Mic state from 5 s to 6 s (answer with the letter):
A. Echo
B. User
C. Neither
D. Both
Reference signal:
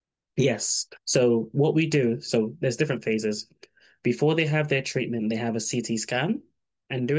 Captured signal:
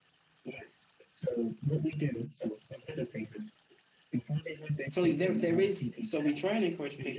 D